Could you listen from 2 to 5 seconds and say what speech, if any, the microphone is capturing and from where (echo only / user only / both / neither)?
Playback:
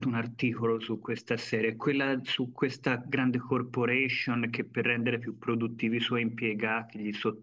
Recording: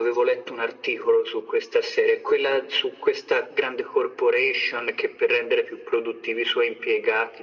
echo only